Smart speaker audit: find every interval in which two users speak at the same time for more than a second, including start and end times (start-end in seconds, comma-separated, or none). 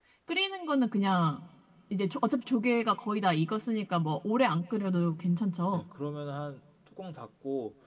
none